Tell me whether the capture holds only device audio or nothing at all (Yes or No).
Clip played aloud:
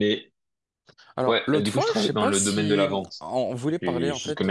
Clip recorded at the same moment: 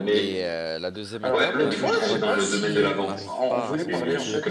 No